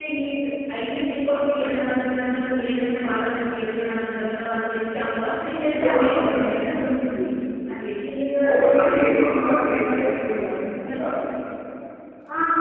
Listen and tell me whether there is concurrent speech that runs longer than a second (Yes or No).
Yes